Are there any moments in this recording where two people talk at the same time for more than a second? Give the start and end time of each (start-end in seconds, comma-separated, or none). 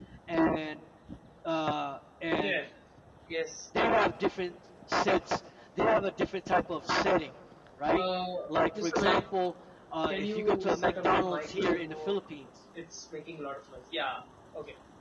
10.1-12.2